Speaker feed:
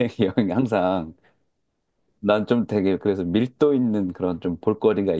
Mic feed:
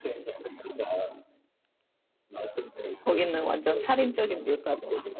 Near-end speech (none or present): present